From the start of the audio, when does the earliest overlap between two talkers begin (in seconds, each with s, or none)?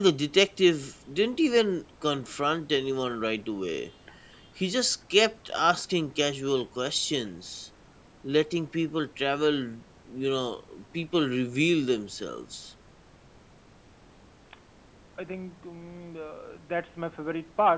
none